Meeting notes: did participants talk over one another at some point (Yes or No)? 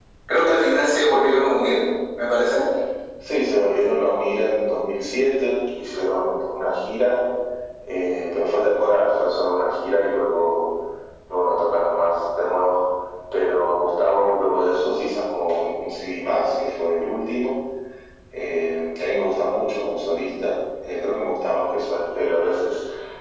No